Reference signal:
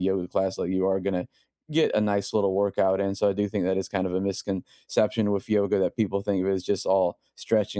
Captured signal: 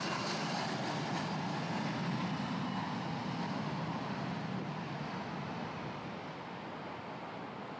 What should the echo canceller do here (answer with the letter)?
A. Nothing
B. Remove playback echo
A